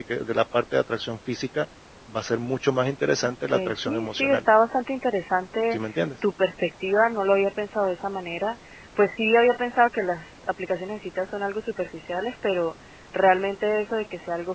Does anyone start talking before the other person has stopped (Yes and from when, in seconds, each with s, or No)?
Yes, from 3.2 s